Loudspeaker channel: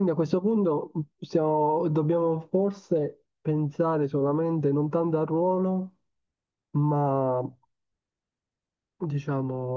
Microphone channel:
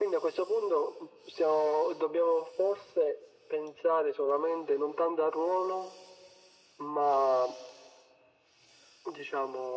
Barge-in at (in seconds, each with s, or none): none